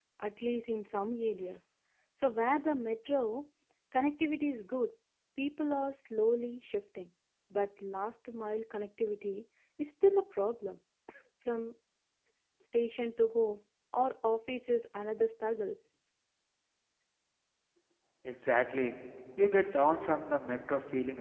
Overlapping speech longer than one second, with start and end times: none

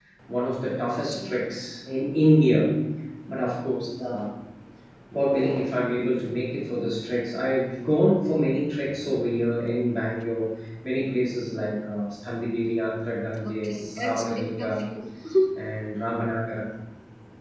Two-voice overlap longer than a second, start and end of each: 13.4-14.8

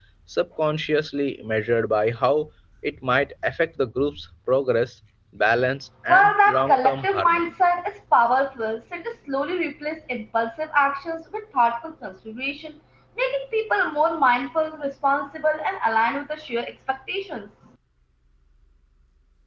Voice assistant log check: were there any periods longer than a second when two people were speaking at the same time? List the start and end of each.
6.1-7.5

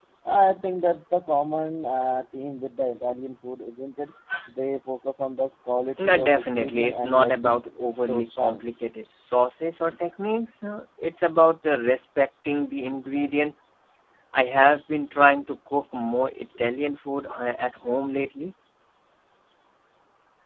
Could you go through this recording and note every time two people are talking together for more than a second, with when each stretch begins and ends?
6.0-7.6

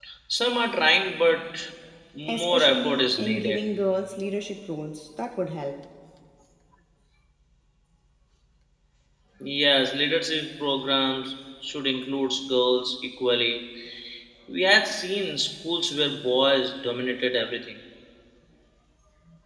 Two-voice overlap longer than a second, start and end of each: 2.3-3.6

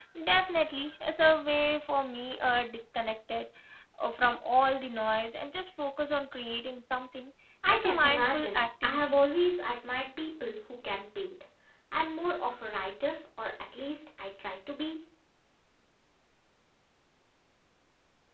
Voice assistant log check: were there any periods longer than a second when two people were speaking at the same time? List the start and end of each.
7.7-9.2

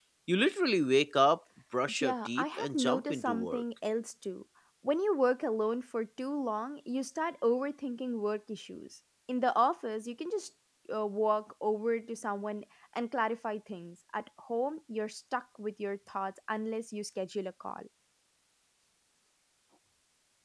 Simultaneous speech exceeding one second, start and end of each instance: 1.9-3.6

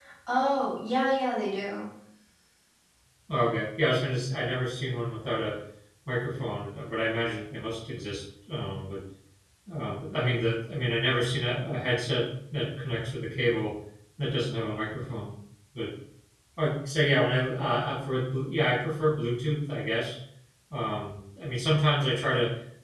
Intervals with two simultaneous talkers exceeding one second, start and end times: none

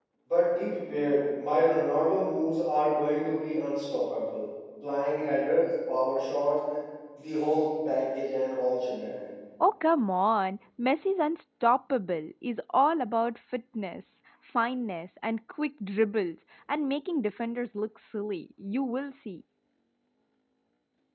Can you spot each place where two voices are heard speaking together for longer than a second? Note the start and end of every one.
none

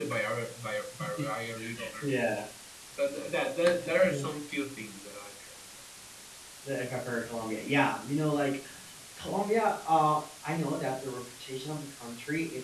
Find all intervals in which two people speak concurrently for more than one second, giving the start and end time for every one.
none

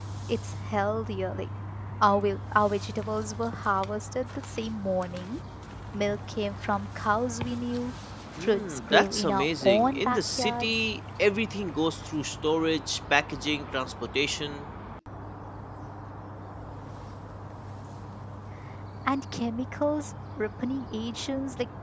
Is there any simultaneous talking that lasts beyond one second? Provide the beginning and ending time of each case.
8.4-10.8

